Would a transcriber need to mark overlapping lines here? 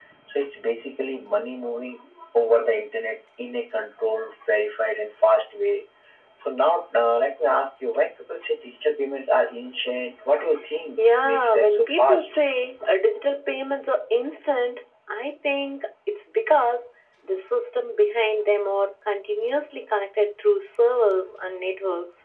Yes, from 11.0 s

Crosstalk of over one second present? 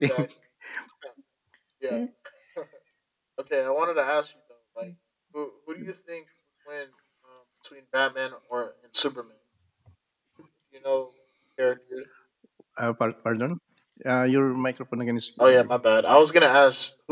No

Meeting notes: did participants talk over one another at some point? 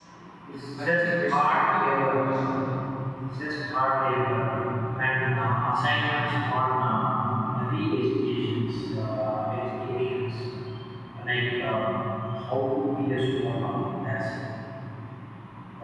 Yes, from 0.8 s

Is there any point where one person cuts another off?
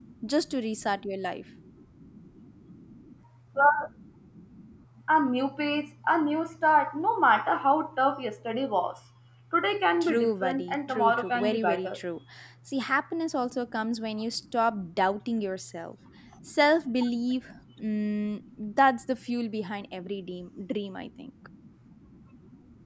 Yes, from 10.0 s

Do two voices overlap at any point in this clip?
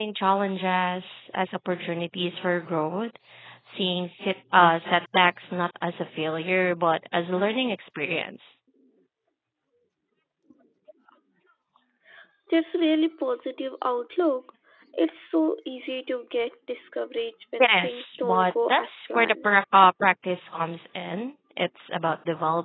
Yes, from 17.6 s

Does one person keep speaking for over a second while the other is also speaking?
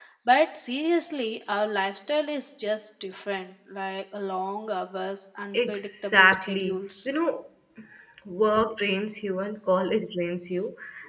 Yes, from 5.5 s

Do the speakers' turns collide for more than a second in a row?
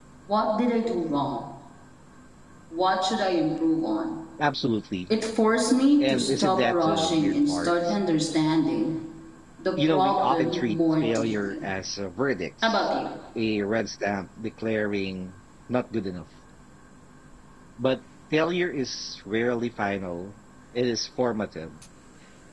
Yes, from 6.0 s

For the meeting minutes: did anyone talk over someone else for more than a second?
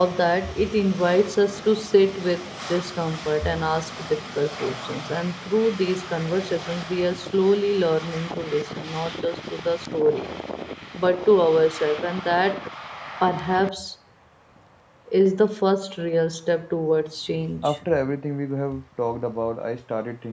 No

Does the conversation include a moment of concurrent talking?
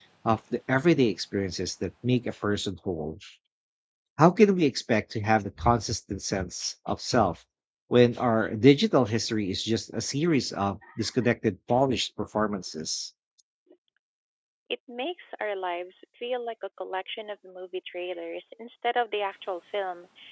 No

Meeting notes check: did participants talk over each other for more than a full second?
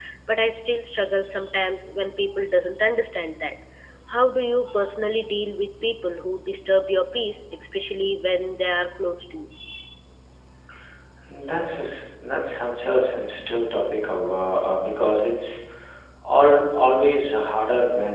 No

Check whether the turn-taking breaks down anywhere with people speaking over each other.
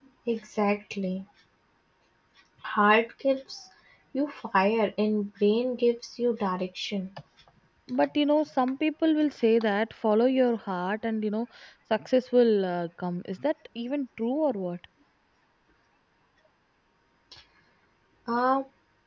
No

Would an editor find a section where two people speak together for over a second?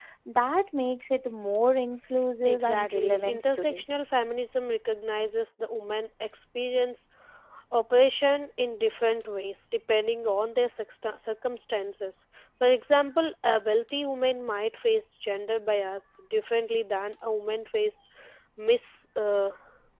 Yes, from 2.4 s

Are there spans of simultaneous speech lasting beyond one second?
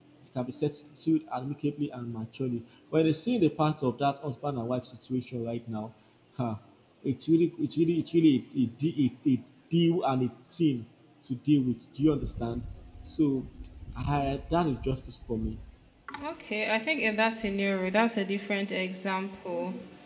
No

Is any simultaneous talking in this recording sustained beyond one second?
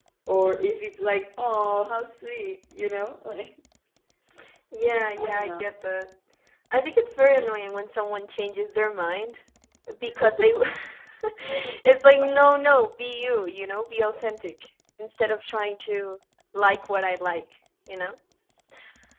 No

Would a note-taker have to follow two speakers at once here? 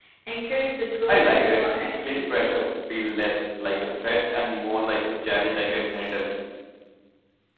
Yes, from 1.1 s

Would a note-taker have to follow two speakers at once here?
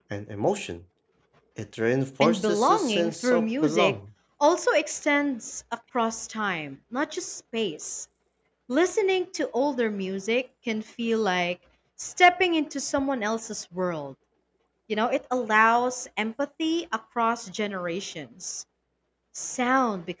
Yes, from 2.2 s

